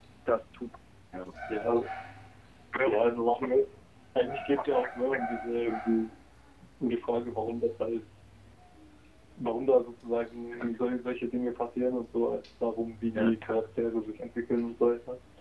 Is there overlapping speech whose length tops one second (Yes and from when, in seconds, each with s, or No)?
No